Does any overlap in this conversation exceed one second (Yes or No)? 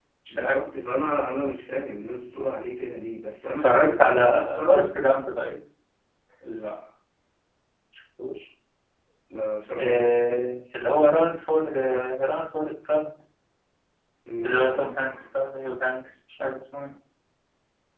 Yes